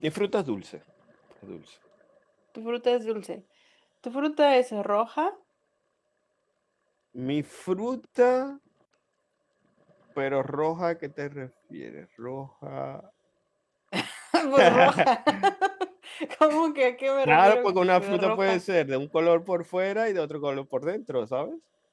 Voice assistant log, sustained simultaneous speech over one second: present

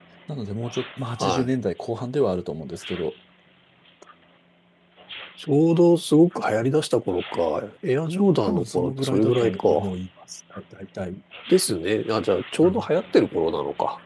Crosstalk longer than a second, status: present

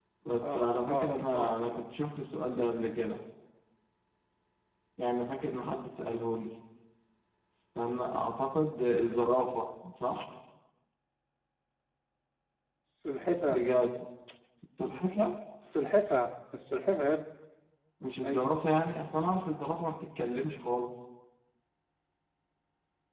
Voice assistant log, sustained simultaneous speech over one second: present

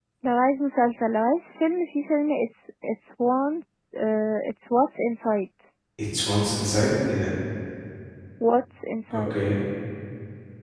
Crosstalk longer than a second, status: none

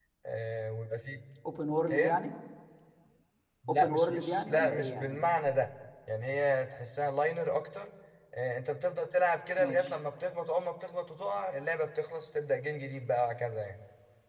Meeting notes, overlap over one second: present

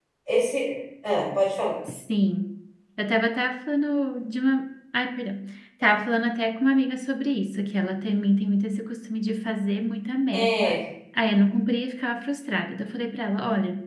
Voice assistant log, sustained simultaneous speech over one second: none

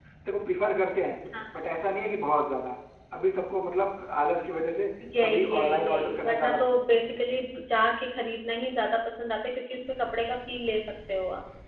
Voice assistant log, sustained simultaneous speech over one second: present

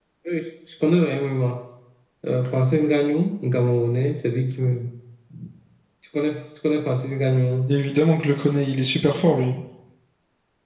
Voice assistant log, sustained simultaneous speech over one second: none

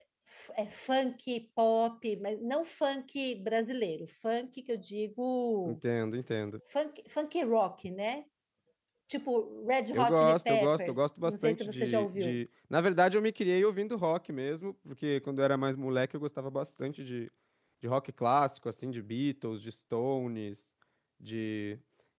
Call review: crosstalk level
present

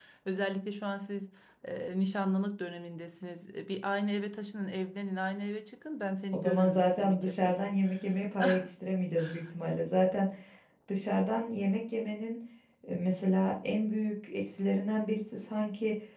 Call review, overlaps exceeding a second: present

